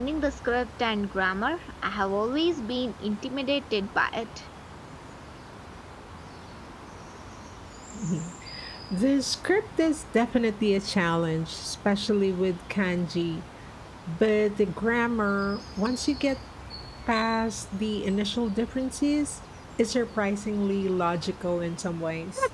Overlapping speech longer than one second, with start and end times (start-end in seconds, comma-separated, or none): none